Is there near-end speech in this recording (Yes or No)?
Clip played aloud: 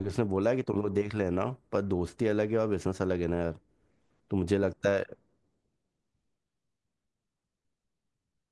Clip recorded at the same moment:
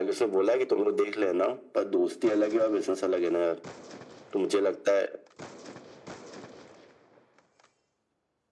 No